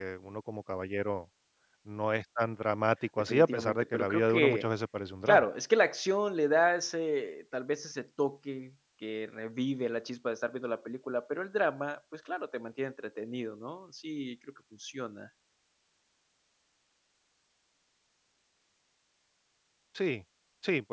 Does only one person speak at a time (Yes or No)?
No